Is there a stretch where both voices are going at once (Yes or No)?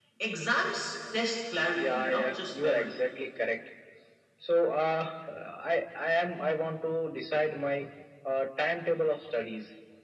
Yes